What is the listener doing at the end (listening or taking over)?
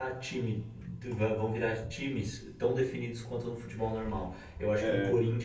listening